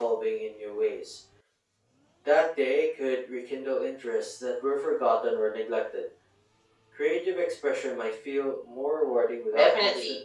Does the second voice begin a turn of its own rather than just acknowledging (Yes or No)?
Yes